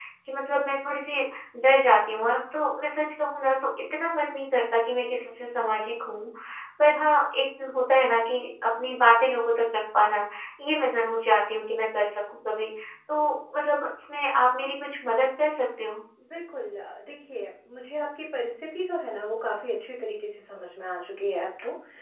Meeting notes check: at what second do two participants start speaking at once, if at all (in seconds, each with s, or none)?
none